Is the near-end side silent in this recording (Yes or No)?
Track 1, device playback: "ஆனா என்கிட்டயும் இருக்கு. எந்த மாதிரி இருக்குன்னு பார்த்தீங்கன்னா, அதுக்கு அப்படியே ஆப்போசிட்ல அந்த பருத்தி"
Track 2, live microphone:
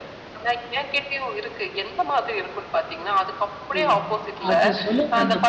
No